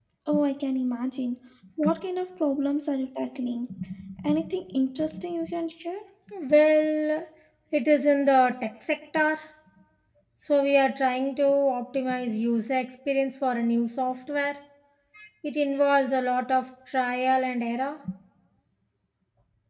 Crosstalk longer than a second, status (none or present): none